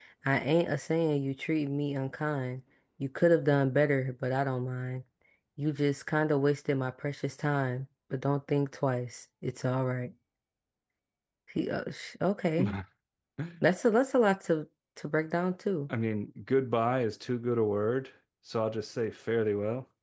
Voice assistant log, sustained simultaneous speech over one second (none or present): none